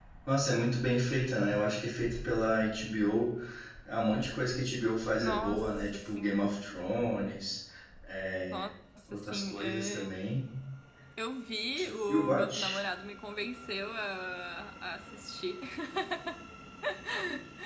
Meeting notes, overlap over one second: present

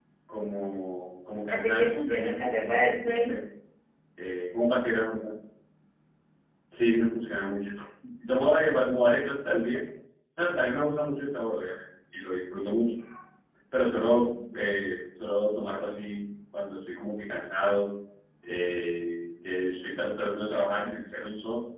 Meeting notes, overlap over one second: present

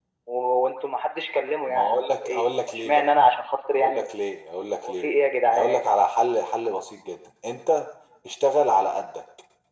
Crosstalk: present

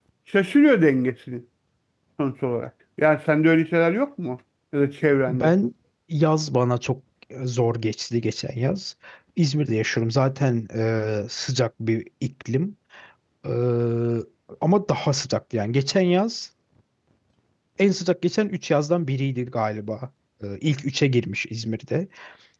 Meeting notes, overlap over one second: none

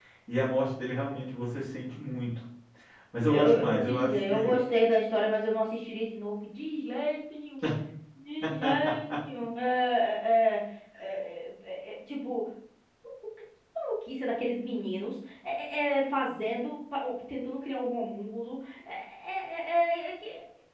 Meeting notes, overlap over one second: present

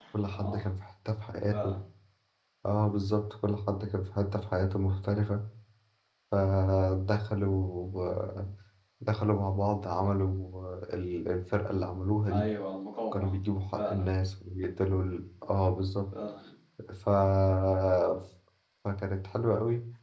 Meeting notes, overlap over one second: none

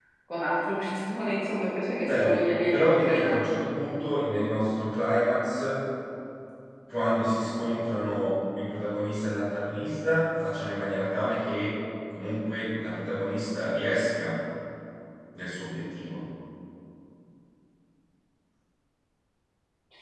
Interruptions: present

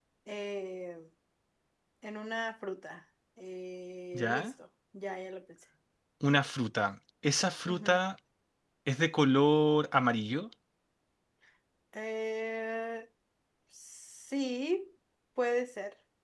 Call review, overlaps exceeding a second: none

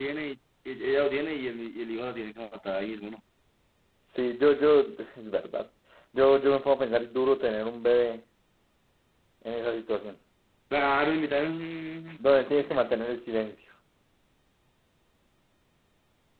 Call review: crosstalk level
none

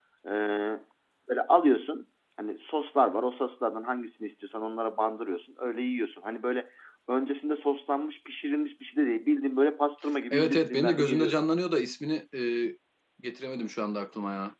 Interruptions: present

